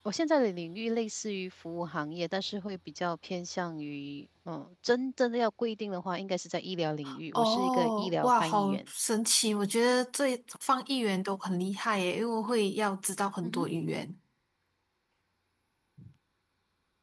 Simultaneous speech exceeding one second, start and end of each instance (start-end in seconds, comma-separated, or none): 7.3-8.9